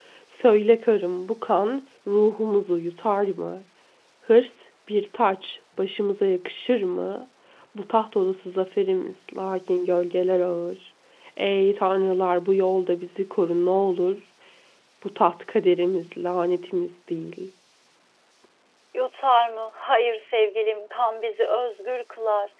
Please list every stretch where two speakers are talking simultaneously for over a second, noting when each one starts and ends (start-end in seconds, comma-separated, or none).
none